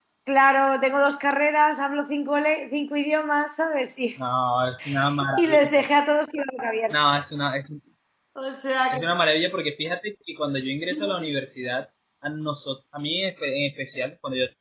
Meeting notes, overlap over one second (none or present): none